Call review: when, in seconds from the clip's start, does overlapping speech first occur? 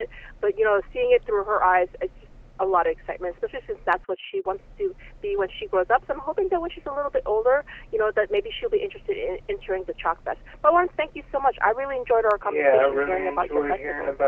12.4 s

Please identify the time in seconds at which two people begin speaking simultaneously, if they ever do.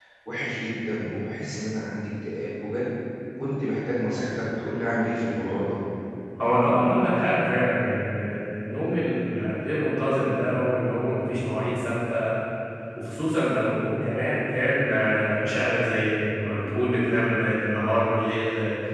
none

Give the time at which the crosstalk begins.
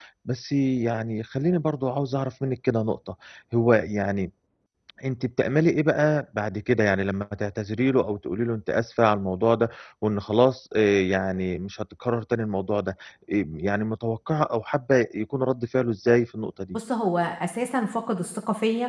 none

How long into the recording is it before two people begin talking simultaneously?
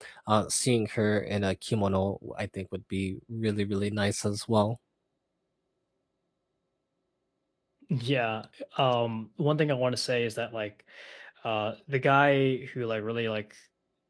none

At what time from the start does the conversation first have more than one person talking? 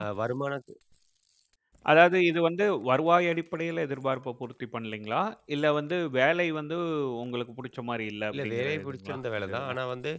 8.3 s

